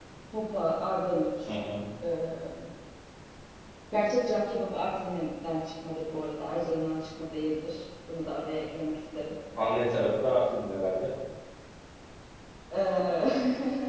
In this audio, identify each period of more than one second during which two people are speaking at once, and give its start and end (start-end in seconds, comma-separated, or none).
none